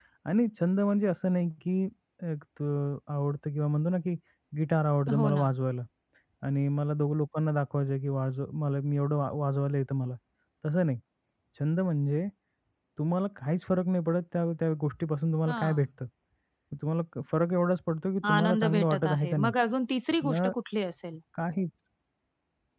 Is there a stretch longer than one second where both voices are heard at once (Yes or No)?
Yes